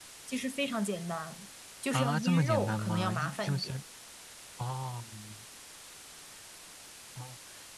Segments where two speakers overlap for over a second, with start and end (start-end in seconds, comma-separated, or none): 1.9-3.8